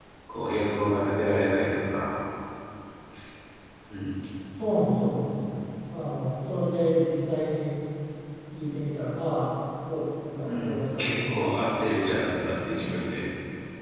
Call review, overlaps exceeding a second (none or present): present